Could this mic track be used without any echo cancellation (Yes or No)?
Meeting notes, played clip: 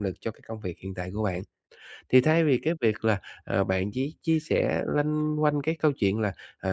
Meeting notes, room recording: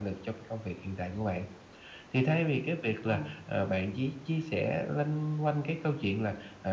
No